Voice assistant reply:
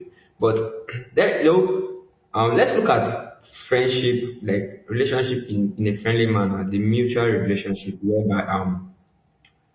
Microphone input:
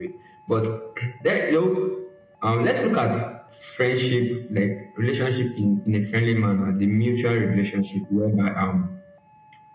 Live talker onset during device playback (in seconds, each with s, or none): none